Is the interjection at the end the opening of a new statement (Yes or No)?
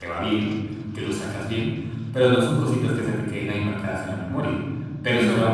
No